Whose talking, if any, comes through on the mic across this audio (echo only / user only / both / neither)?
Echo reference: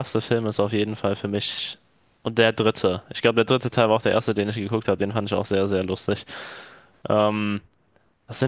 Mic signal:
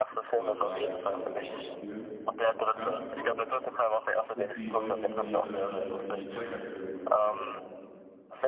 both